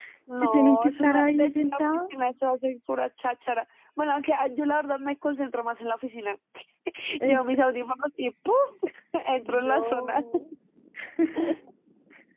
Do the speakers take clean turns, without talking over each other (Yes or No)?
No